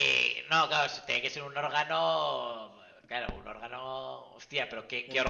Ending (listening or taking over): taking over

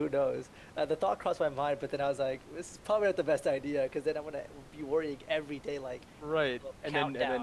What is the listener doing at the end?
taking over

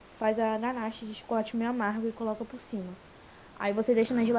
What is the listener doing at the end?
listening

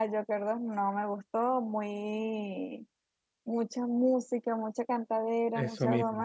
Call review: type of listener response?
listening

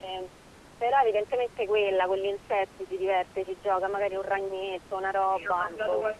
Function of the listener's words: taking over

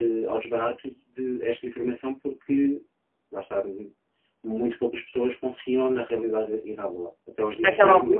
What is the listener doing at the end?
taking over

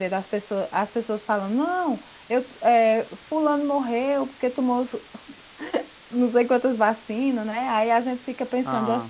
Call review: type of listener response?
listening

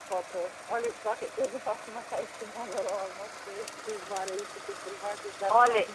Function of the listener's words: taking over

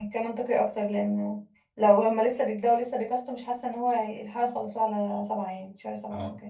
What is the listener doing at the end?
taking over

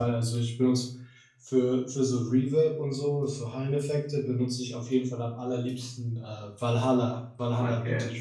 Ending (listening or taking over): taking over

